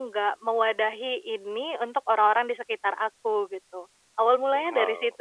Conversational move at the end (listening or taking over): taking over